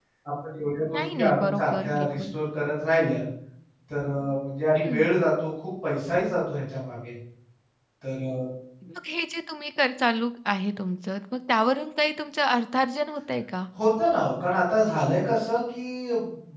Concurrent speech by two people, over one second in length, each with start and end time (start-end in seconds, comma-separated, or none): 0.9-2.2